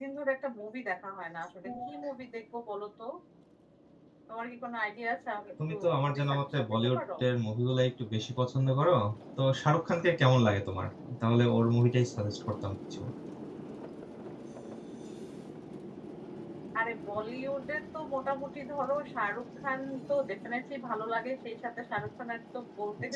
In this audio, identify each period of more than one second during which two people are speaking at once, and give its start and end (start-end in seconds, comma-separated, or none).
5.7-7.0